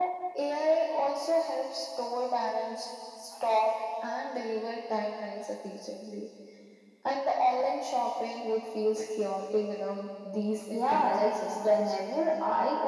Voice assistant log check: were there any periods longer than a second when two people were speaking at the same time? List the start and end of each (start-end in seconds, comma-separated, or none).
10.8-12.2